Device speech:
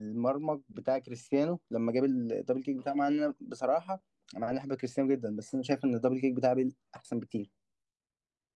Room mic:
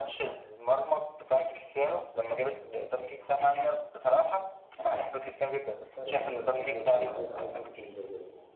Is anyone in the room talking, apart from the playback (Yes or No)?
Yes